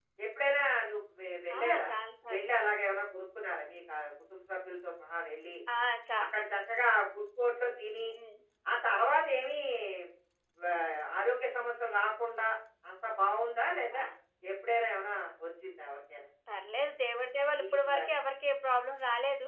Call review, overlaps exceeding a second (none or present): none